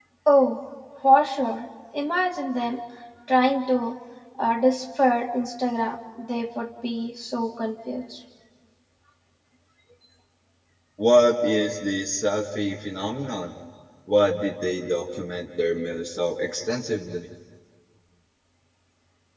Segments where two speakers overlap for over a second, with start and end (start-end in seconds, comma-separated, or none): none